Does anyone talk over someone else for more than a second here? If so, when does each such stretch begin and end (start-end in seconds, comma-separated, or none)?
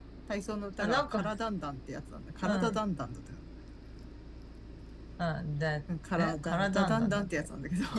6.2-7.5